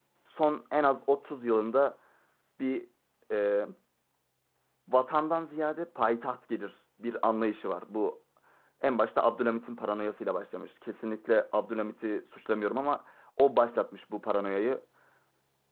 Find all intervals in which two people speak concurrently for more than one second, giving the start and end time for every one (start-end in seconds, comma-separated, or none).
none